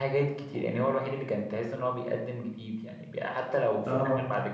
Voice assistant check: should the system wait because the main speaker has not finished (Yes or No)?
Yes